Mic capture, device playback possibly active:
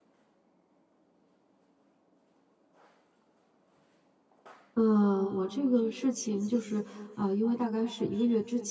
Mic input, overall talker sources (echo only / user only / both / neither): user only